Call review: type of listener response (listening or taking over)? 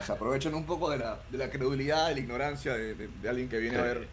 listening